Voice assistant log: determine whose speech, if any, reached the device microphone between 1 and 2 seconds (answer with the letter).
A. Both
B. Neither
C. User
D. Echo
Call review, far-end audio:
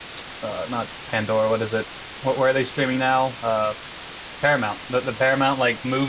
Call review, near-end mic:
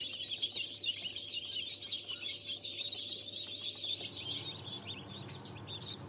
B